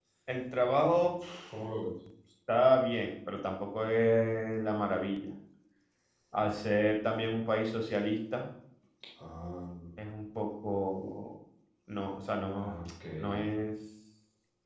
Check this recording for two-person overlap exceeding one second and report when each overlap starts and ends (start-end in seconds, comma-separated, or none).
none